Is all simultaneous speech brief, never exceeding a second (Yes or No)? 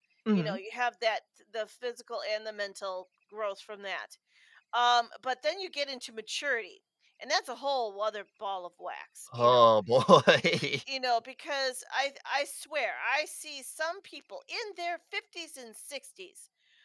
Yes